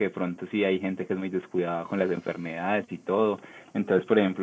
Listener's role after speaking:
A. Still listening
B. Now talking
A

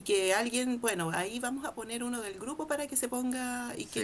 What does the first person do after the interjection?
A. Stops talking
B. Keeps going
B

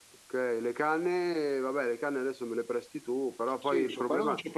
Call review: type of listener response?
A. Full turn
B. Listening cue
A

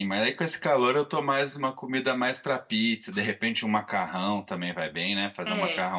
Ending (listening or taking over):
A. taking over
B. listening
B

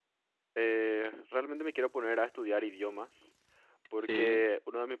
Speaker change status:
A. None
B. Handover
A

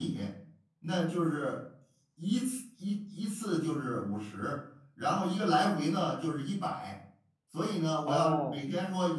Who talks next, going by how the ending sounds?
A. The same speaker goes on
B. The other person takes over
A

